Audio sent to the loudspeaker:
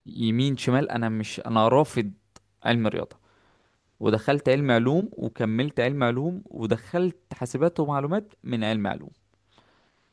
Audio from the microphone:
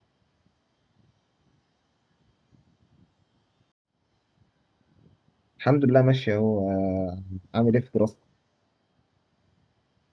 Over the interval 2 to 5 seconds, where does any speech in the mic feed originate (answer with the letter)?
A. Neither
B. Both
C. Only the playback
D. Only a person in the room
A